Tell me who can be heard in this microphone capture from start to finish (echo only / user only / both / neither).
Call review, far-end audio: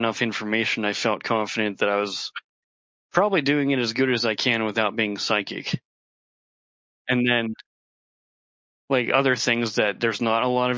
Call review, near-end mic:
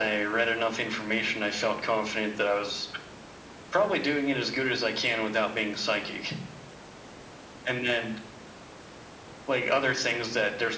echo only